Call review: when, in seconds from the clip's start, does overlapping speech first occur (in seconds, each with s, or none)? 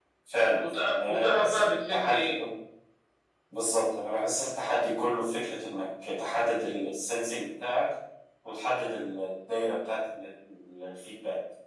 0.6 s